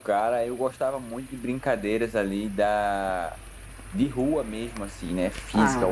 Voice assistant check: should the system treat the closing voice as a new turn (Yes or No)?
No